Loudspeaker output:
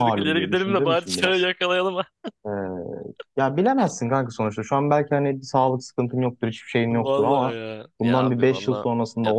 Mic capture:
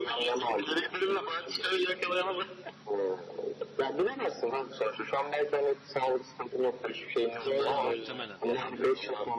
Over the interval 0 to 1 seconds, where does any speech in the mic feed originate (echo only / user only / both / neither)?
echo only